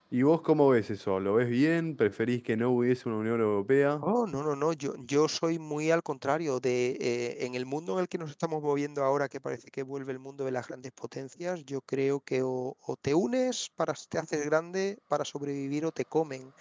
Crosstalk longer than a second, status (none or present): none